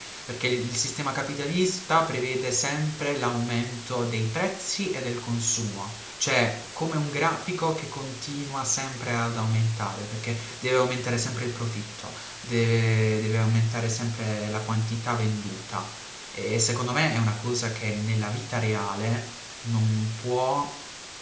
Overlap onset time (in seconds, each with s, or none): none